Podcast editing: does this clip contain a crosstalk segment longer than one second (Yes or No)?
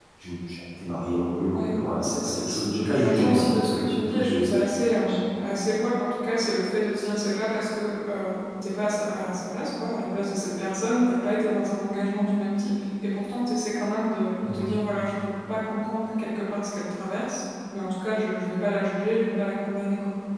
Yes